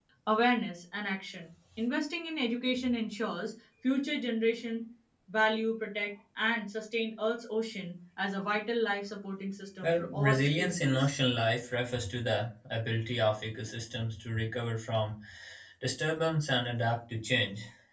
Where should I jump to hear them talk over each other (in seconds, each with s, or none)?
9.8 s